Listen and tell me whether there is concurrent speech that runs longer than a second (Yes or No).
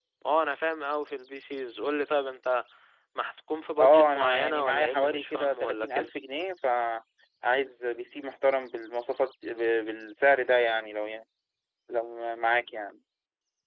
Yes